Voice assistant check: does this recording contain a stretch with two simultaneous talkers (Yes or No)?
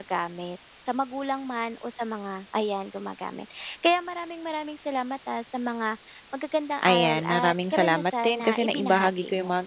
Yes